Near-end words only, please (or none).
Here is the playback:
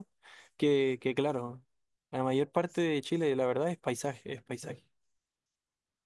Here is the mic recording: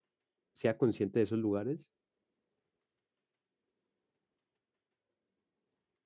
sea consciente de esos lugares